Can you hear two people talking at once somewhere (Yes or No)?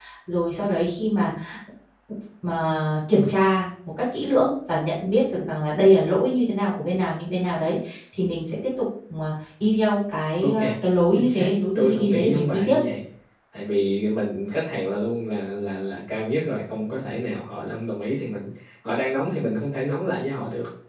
Yes